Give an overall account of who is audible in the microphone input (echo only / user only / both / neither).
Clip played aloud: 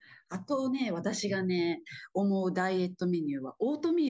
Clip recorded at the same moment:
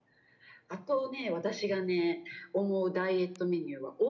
echo only